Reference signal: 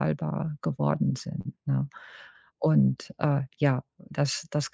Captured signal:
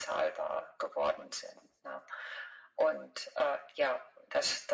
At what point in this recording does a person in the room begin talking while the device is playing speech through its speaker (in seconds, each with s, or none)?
none